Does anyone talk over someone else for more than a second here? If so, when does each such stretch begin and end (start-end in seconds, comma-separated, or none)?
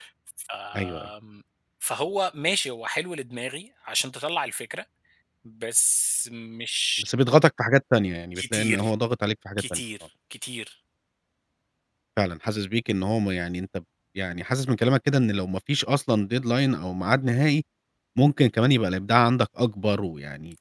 none